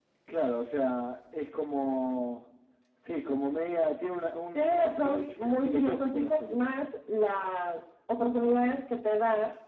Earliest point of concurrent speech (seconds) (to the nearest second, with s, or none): 5 s